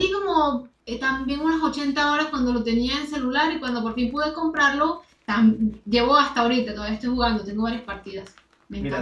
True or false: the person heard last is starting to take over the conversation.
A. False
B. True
B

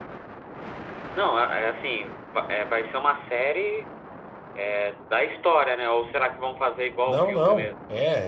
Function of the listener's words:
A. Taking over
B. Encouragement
A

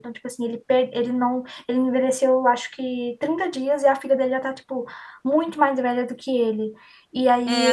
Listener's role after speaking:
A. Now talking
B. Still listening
A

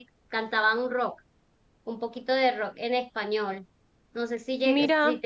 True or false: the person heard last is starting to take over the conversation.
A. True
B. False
B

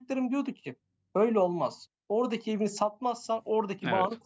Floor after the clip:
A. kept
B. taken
A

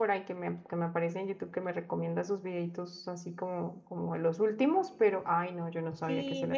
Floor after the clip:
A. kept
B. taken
B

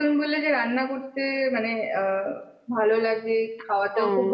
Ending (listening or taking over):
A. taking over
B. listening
B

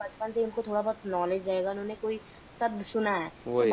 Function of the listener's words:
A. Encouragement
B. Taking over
A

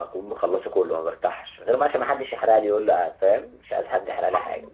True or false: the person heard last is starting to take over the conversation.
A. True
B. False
A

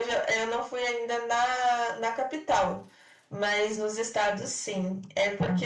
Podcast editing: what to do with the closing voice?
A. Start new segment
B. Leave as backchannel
B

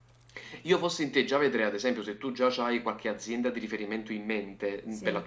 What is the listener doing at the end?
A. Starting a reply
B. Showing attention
B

